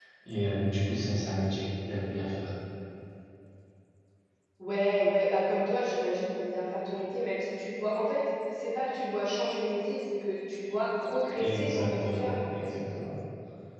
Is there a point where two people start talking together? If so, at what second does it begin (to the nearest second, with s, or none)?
11 s